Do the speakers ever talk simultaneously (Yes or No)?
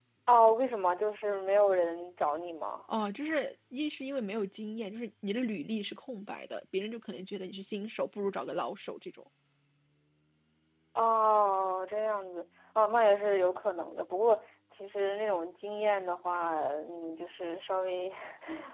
No